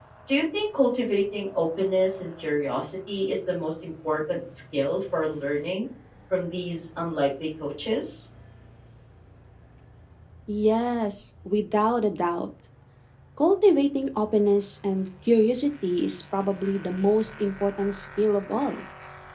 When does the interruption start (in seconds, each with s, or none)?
none